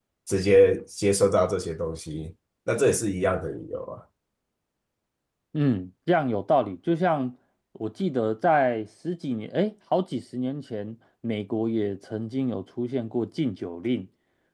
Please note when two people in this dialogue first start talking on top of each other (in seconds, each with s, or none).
none